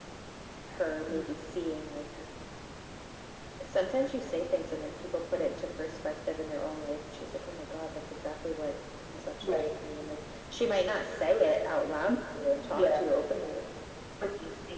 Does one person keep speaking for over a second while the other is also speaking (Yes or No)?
No